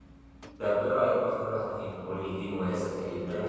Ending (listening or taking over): taking over